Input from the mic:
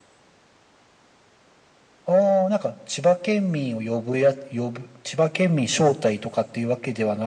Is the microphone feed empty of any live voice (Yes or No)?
Yes